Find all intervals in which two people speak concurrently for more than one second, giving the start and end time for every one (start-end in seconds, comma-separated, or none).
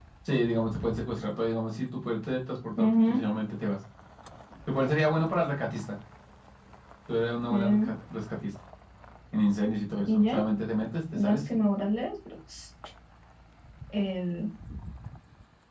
none